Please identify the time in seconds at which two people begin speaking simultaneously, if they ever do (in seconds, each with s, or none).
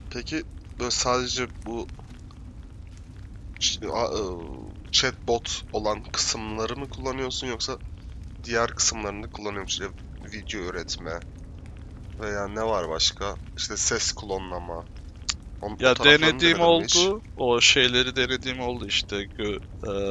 15.8 s